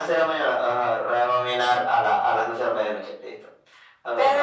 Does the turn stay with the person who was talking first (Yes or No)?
No